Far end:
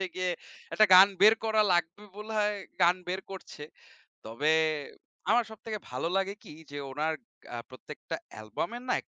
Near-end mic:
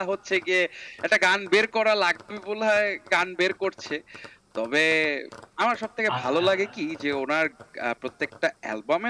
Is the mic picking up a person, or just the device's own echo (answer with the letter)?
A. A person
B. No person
A